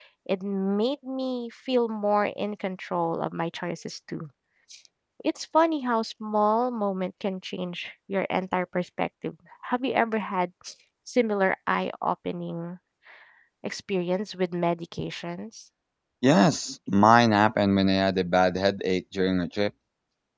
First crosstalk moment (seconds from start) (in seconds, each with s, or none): none